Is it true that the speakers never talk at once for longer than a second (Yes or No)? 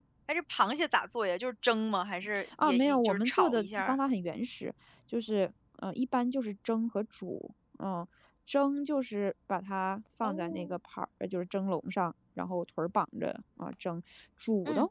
No